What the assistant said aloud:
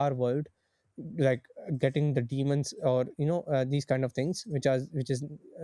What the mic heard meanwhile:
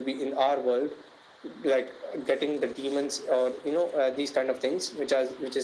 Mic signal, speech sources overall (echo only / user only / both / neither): echo only